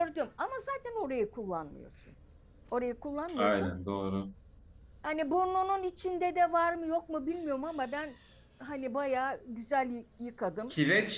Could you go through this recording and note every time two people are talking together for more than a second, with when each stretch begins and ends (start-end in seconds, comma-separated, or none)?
none